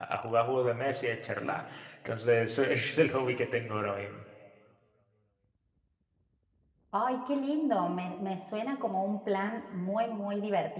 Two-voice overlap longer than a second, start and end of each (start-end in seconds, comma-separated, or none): none